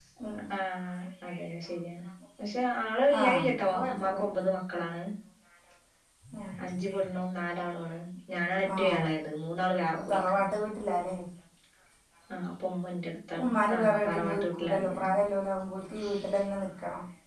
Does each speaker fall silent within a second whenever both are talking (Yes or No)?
No